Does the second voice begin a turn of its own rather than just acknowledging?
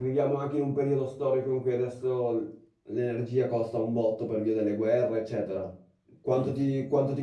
No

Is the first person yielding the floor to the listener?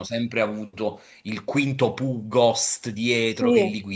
No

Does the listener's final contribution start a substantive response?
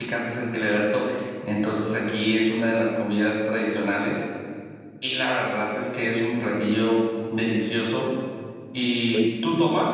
No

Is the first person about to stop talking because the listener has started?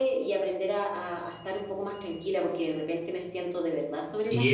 Yes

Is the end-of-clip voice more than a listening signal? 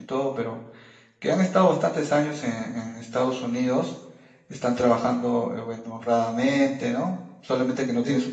No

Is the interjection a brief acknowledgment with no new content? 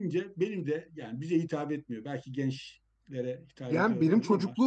No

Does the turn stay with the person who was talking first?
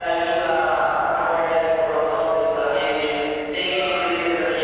Yes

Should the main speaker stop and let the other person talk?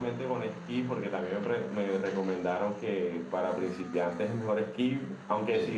No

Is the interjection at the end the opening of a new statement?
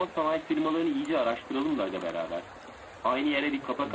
No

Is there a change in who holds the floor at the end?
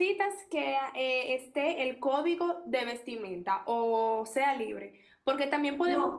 No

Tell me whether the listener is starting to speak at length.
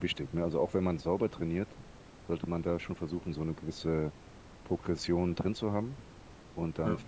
No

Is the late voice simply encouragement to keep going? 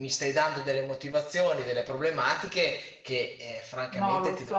No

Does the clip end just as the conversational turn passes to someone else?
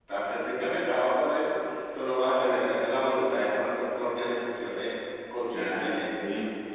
Yes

